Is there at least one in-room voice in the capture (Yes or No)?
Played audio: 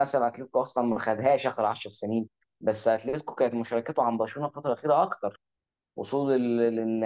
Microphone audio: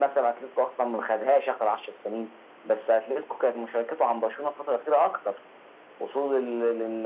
No